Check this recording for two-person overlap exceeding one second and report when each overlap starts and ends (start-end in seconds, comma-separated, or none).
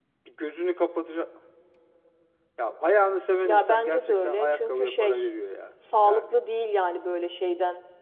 3.4-5.2